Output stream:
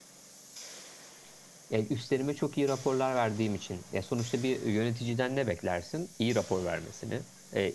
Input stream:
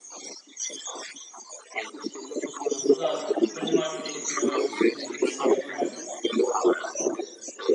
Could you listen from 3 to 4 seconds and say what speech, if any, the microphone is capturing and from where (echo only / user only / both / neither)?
both